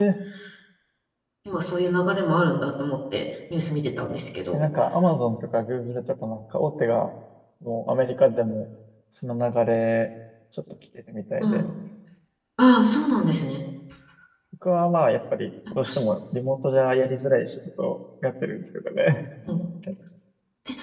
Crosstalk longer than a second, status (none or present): none